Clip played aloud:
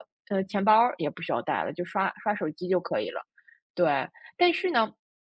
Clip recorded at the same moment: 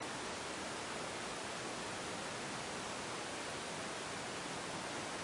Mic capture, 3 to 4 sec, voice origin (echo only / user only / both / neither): neither